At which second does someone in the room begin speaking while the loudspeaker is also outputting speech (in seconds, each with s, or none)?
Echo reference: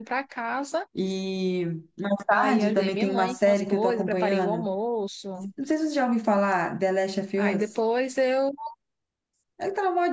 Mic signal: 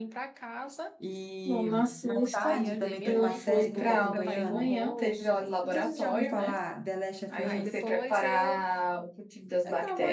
1.4 s